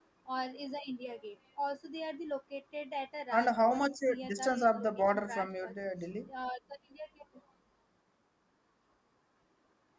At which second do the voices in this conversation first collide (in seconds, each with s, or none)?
3.3 s